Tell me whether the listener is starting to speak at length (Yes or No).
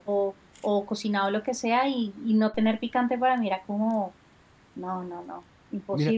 Yes